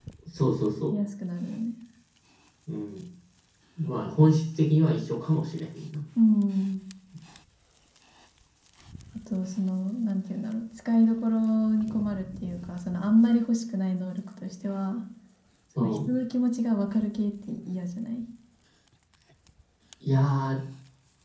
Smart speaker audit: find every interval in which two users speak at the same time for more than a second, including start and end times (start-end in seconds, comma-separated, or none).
none